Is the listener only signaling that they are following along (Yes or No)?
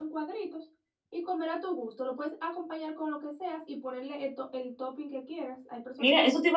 No